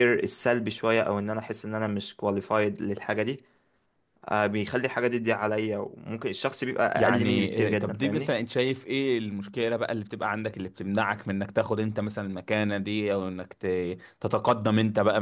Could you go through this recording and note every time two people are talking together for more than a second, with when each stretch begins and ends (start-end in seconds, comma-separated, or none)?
7.0-8.3